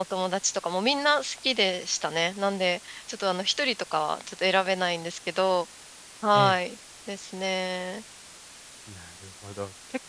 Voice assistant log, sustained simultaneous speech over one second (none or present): none